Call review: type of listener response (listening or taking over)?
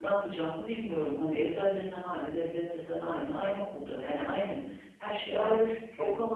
taking over